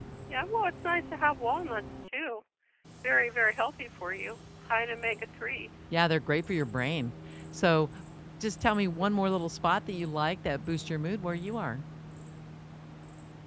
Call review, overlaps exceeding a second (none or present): none